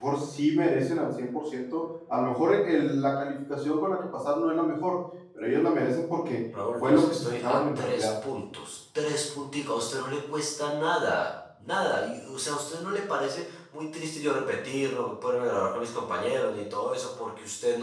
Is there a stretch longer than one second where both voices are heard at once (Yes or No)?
Yes